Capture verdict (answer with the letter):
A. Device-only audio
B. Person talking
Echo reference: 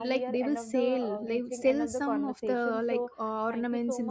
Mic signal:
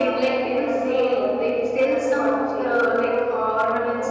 A